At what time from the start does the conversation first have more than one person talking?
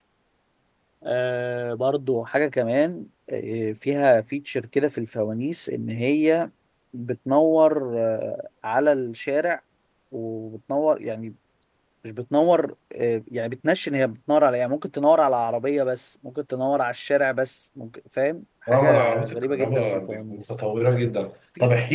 18.7 s

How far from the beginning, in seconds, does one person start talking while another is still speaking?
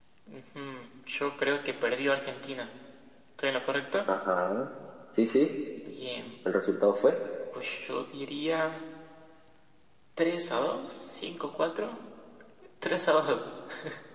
none

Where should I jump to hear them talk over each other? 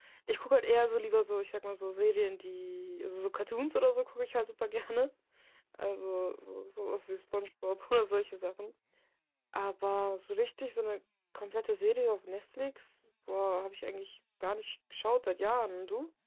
none

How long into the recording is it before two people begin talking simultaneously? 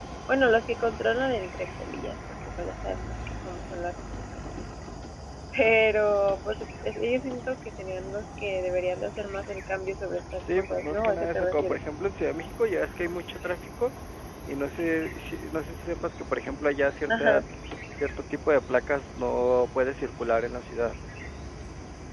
10.4 s

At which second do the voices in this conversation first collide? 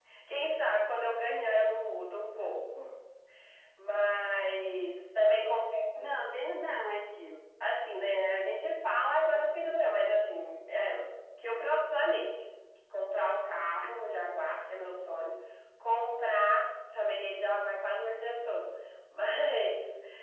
none

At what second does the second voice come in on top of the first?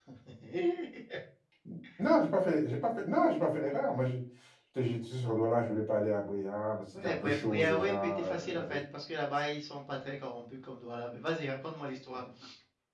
6.9 s

